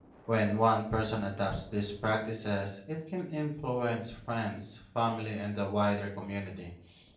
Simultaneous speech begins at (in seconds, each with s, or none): none